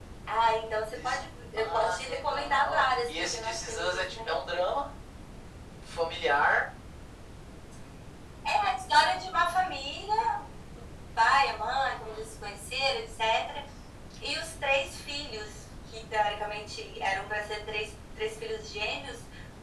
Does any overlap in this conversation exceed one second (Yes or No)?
Yes